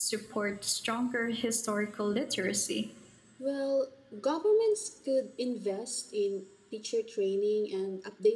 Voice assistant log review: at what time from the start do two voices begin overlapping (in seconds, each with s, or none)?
none